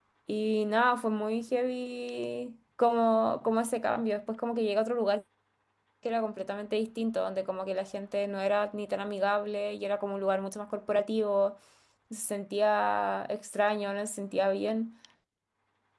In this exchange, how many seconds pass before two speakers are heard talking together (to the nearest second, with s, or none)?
none